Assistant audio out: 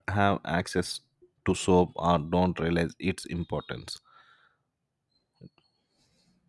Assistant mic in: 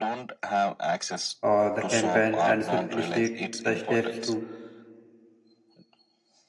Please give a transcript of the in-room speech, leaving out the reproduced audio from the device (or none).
uh, the campaign and should initiate the steps to